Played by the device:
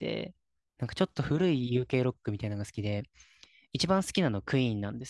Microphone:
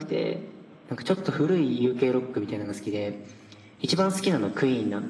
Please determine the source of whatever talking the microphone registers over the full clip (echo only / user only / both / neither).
echo only